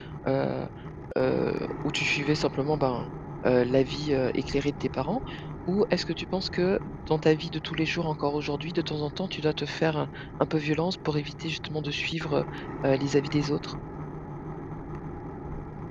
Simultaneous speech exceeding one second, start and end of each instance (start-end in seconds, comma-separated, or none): none